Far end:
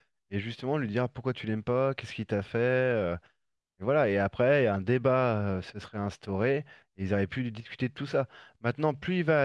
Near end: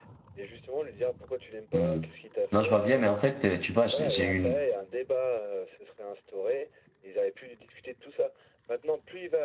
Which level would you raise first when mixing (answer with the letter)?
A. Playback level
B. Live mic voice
A